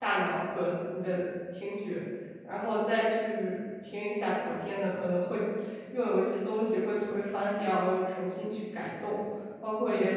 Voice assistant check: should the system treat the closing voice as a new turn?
Yes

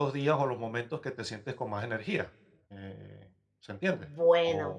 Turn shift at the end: Yes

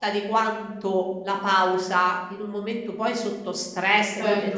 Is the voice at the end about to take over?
No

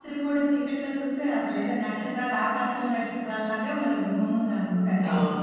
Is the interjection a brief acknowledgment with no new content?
No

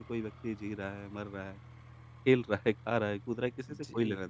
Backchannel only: No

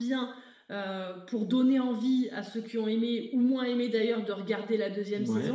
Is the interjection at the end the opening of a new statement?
No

